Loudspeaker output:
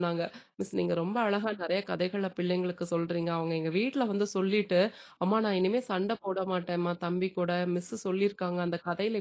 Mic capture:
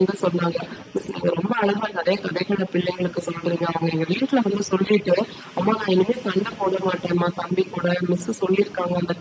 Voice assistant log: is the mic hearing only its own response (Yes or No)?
Yes